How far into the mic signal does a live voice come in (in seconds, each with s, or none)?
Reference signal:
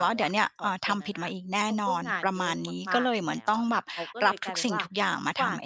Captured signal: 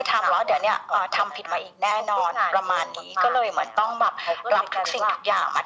none